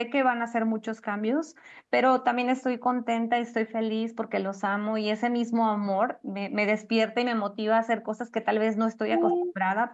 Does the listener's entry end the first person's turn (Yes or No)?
No